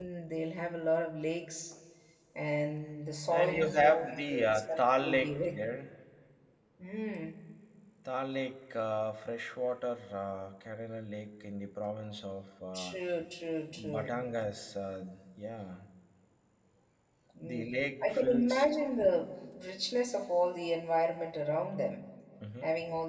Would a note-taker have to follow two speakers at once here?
Yes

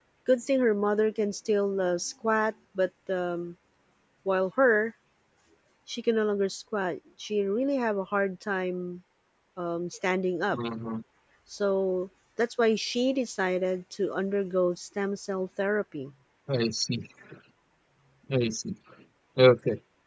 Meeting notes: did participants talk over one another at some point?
No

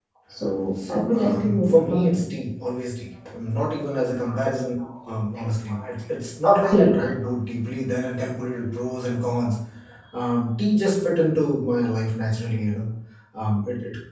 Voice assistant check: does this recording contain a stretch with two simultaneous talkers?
Yes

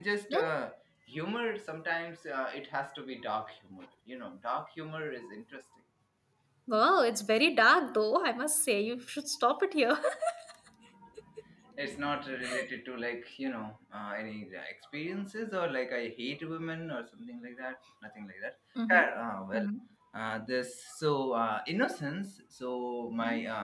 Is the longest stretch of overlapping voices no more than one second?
Yes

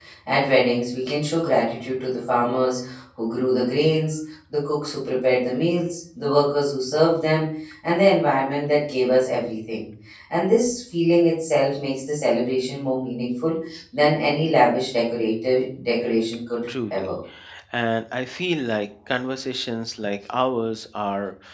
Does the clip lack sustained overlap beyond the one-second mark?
Yes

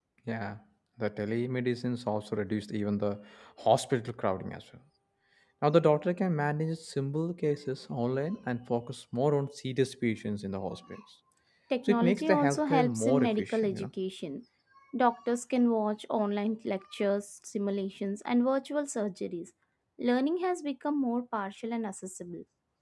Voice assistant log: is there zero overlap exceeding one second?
No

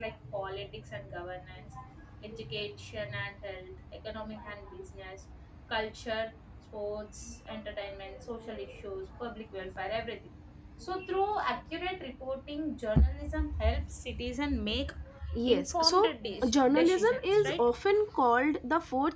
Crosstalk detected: Yes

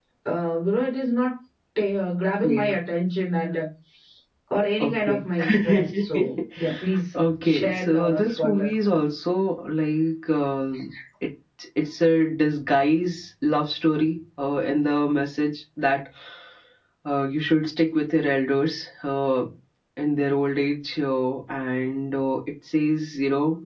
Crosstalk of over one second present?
Yes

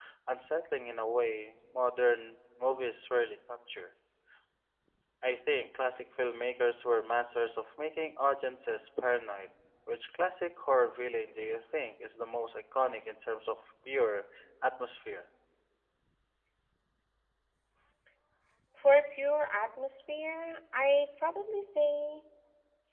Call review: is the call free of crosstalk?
Yes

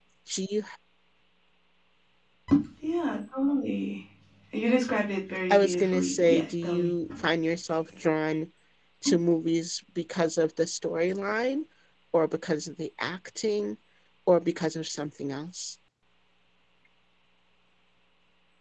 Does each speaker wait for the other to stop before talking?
No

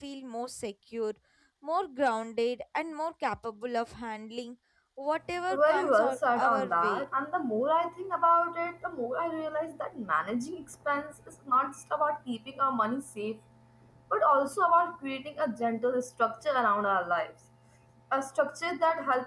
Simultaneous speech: Yes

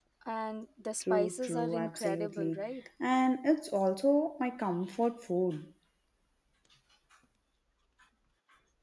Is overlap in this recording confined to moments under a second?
No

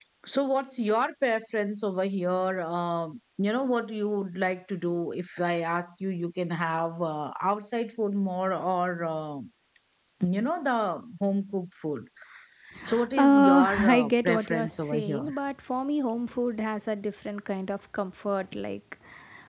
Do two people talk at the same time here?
Yes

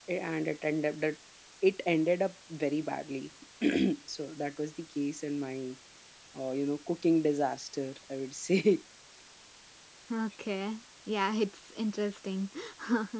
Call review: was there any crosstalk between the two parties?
No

